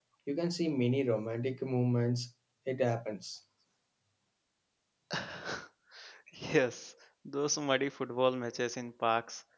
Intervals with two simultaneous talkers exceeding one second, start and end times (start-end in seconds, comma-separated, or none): none